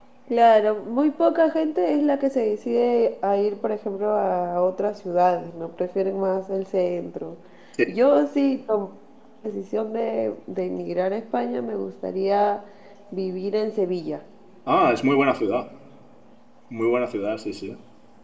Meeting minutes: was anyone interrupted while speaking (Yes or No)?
No